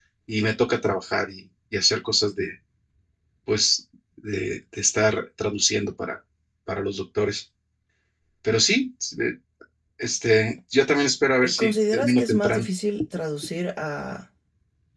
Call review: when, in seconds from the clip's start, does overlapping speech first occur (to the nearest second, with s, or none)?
11 s